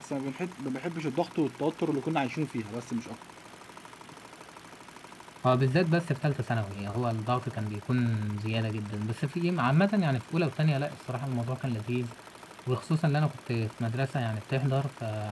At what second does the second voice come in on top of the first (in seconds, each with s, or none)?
none